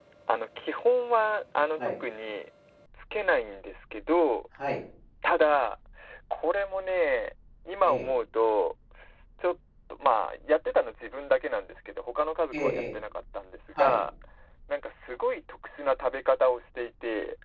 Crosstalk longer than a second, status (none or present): none